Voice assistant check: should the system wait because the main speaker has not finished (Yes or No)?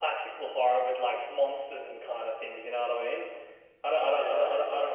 Yes